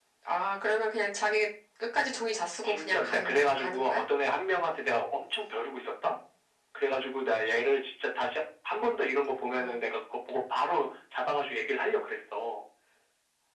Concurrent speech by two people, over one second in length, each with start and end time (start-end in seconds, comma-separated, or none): 2.6-4.0